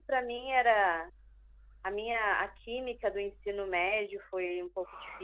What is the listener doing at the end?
taking over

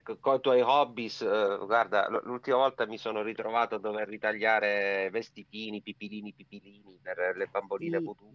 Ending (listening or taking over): taking over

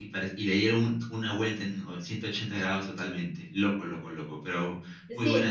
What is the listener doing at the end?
taking over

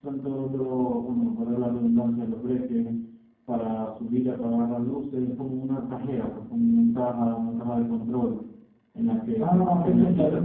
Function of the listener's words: taking over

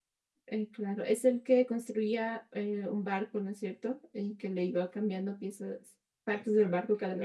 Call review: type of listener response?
taking over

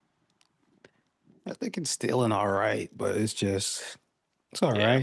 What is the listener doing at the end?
listening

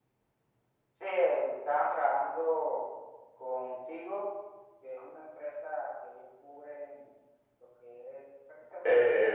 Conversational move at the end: taking over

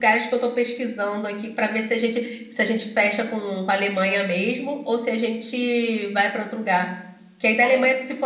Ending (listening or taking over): listening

